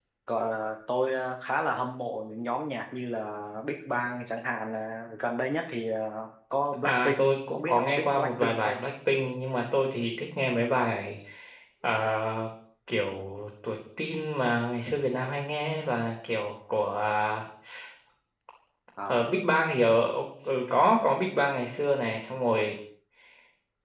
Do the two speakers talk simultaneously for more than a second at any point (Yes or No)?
Yes